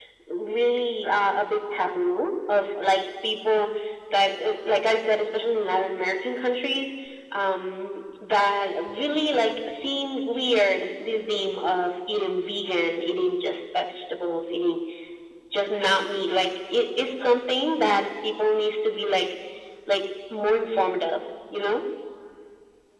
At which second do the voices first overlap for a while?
none

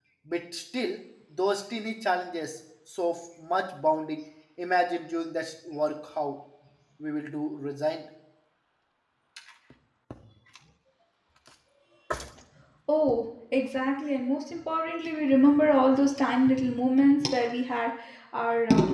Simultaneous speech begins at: none

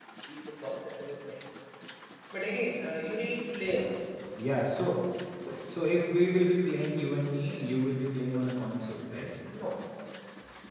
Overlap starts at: none

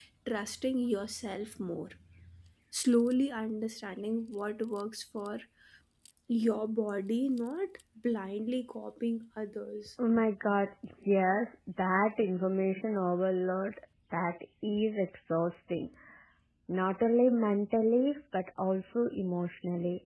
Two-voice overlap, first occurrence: none

